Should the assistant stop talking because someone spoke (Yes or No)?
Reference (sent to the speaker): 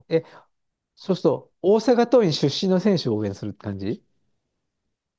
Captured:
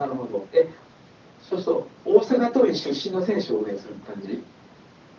No